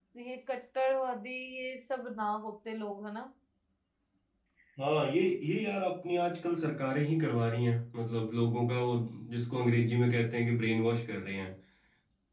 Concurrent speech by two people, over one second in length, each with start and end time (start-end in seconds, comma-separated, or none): none